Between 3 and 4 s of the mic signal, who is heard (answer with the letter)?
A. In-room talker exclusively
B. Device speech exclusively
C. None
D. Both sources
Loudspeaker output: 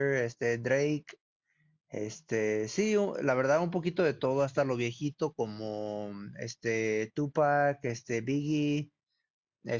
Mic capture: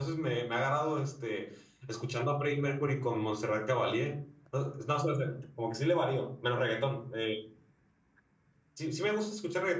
A